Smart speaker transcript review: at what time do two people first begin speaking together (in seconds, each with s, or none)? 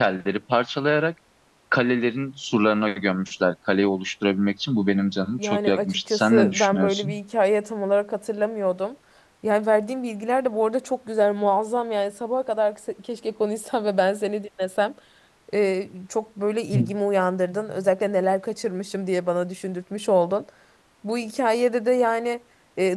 5.4 s